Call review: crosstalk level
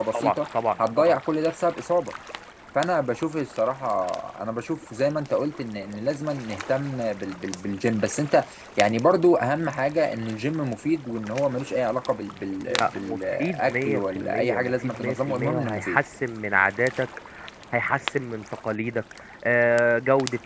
present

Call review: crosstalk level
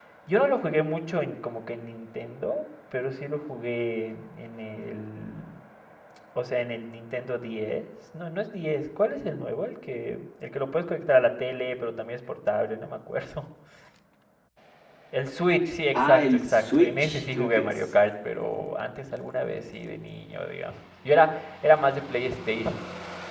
present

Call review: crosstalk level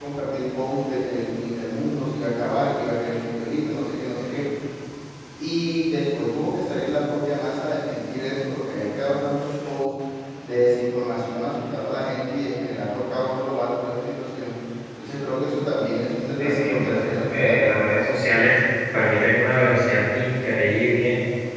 present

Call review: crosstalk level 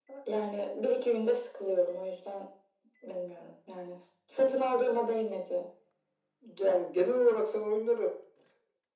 none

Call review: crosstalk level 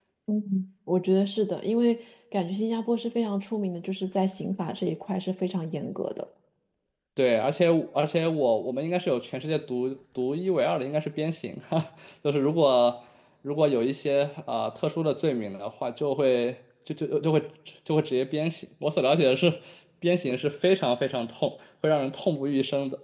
none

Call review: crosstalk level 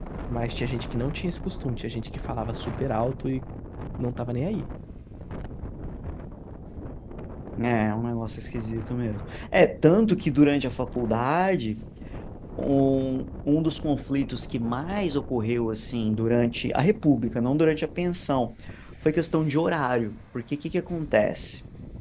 none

